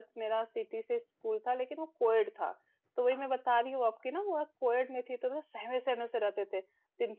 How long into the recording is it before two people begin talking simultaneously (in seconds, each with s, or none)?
none